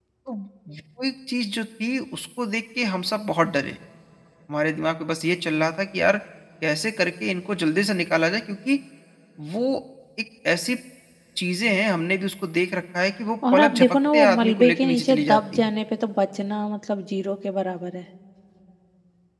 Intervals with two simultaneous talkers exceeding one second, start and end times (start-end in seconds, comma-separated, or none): 13.5-15.7